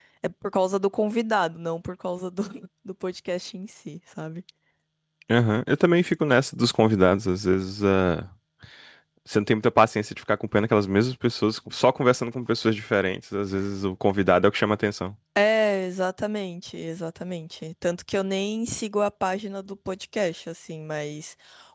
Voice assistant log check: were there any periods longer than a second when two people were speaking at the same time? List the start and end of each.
none

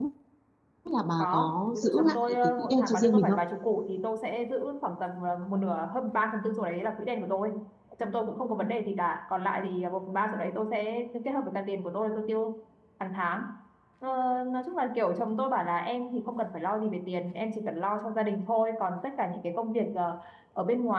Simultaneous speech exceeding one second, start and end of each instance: 1.2-3.4

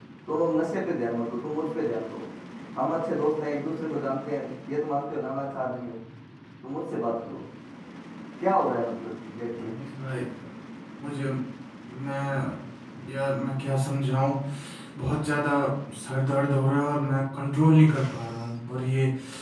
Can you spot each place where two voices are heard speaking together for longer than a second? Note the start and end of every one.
none

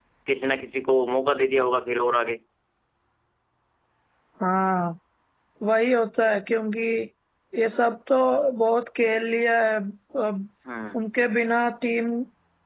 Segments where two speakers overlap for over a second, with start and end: none

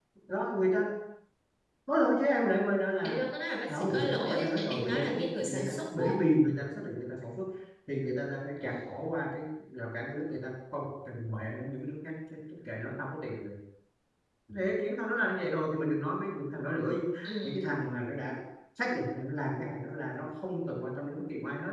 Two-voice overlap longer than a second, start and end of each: 3.7-6.0

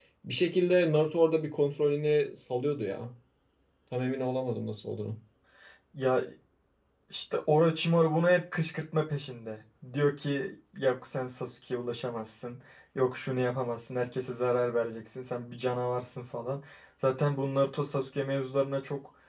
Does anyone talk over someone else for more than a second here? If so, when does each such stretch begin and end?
none

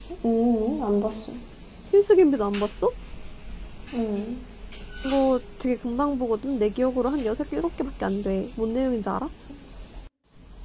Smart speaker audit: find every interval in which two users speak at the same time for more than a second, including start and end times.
none

